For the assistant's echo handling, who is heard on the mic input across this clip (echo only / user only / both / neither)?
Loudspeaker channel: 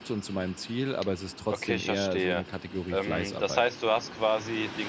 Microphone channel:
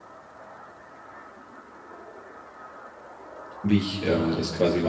user only